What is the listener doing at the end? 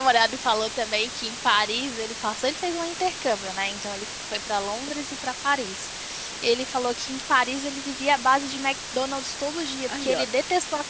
listening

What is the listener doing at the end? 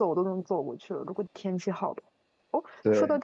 listening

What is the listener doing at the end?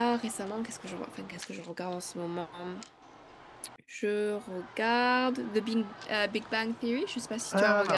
taking over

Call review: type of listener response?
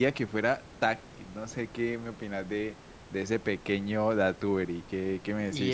taking over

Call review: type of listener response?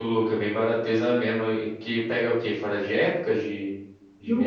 taking over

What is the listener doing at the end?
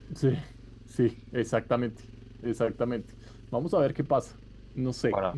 listening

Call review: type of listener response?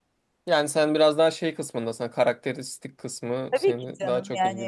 taking over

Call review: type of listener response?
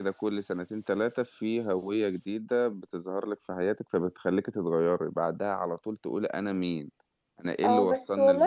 taking over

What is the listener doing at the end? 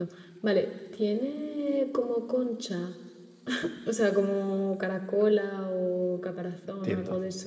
taking over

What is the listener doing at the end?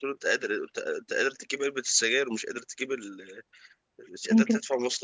listening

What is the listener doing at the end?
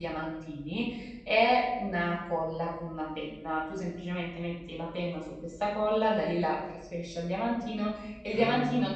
listening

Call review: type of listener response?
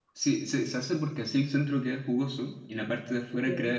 listening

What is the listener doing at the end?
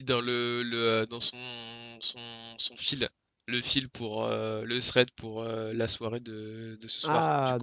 taking over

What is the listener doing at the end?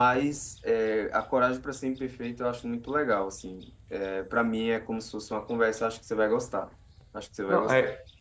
taking over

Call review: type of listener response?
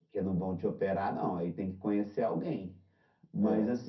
listening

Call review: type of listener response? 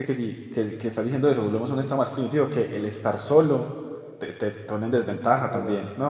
taking over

